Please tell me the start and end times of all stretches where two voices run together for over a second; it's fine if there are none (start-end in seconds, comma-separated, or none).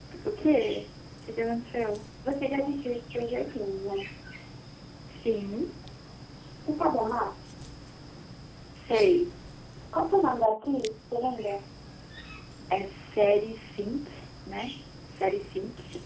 none